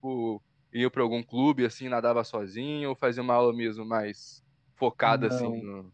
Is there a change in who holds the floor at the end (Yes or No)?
Yes